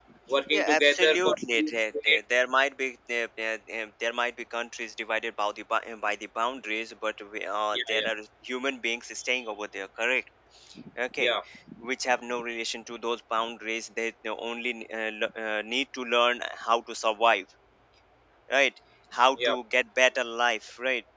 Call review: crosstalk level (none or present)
present